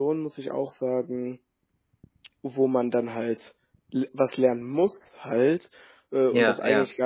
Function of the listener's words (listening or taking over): listening